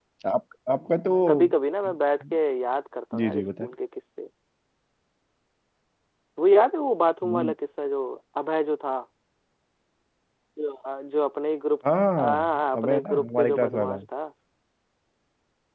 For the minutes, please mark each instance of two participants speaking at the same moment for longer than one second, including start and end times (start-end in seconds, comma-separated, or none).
12.2-14.0